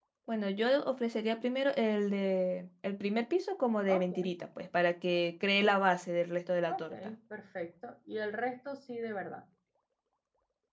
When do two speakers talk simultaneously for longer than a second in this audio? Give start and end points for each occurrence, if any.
none

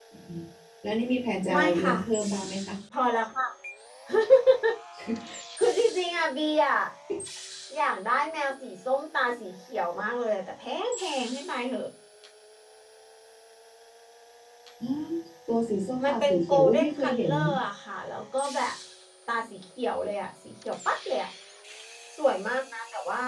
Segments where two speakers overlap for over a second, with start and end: 16.0-17.3

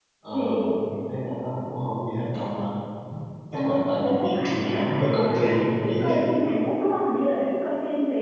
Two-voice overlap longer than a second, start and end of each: 4.0-6.3

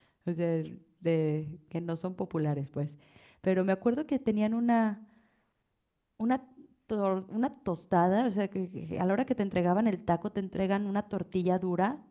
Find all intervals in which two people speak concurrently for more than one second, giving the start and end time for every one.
none

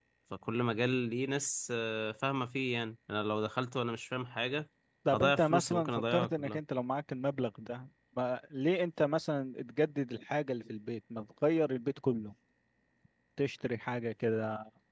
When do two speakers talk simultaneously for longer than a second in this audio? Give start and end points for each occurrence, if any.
5.1-6.6

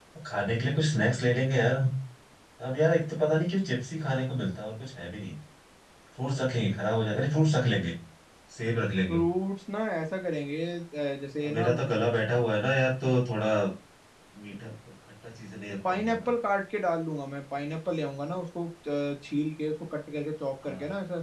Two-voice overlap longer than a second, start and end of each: none

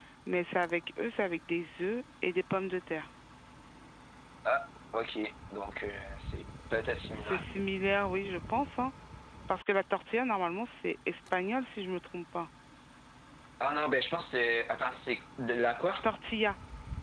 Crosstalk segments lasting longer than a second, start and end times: none

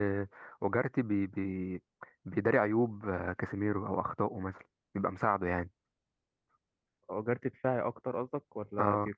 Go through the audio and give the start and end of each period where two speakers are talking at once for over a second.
none

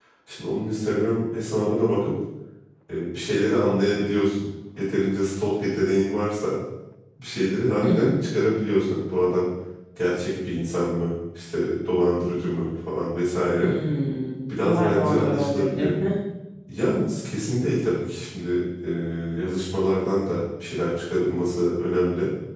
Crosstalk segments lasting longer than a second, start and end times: 14.5-15.9

